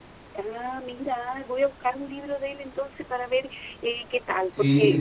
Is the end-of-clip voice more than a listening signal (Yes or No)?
Yes